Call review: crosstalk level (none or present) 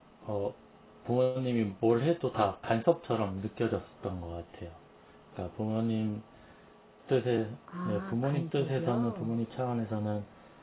present